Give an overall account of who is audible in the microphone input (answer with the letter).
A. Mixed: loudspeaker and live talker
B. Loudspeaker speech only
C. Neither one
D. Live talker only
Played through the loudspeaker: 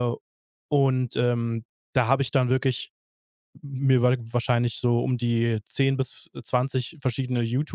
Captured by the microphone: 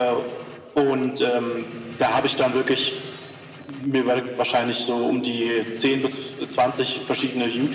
B